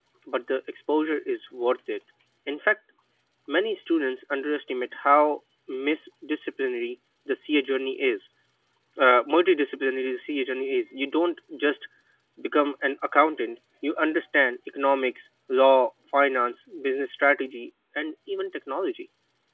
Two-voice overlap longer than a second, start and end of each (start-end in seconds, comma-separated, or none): none